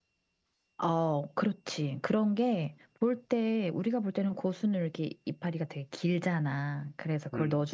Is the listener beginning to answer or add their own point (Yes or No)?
No